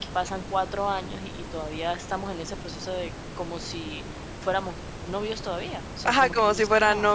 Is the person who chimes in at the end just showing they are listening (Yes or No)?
No